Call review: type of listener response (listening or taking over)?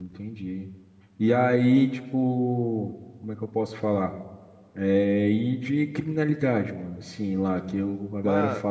listening